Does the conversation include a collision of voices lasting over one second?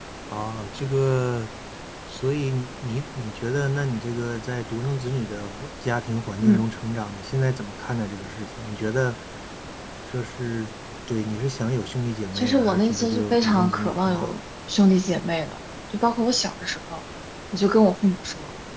Yes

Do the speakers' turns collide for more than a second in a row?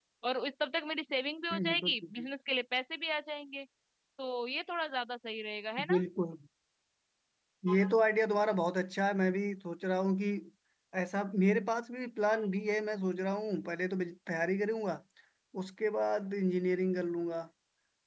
No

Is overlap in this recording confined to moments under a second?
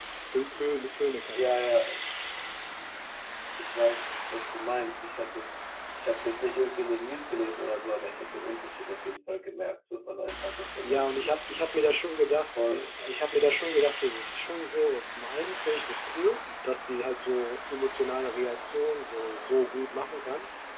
Yes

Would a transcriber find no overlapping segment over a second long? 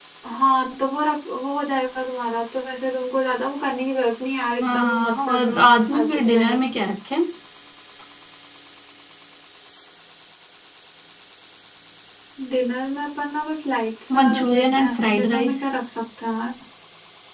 No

